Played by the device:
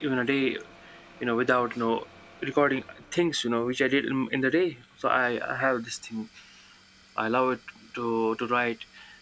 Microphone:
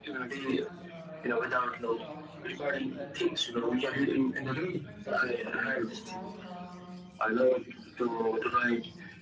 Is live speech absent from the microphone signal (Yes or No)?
No